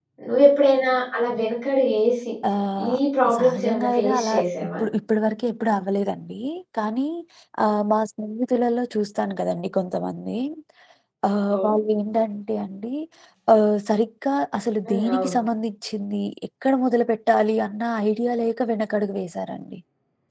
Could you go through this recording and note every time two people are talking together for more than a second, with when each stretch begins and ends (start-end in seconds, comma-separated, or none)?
3.4-4.7